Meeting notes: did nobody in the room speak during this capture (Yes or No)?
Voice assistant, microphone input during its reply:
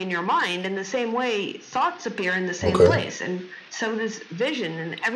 No